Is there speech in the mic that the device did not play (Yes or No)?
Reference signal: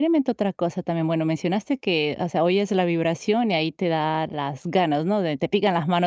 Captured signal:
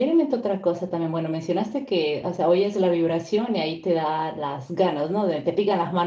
No